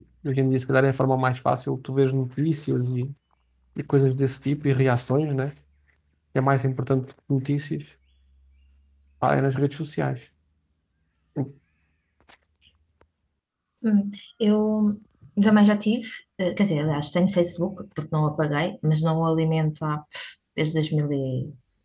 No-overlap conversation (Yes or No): Yes